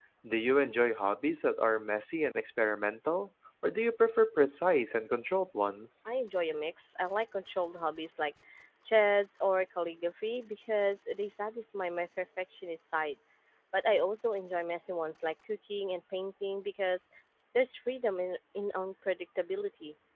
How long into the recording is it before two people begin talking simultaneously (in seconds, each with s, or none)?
none